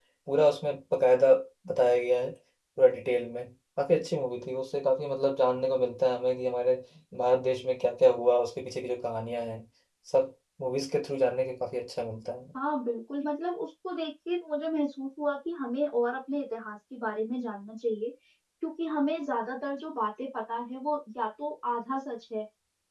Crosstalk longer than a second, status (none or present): none